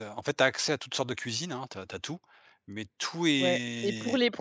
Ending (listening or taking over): taking over